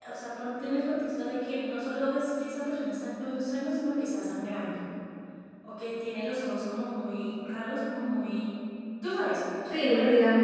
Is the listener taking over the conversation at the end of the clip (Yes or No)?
Yes